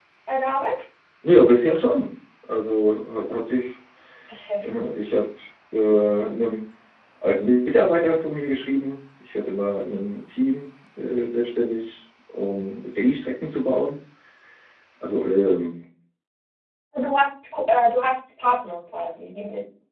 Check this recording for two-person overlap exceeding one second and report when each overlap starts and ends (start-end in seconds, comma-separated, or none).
none